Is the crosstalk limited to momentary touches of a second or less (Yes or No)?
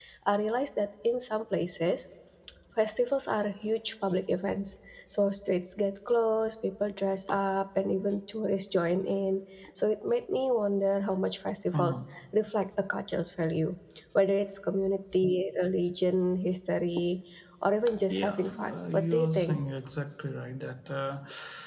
No